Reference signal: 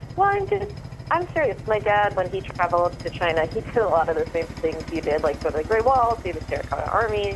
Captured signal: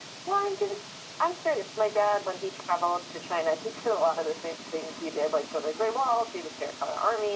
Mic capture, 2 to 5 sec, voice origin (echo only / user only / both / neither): echo only